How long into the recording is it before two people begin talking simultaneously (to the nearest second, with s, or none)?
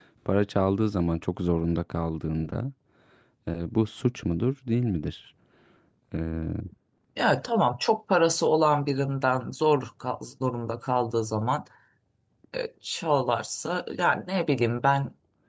none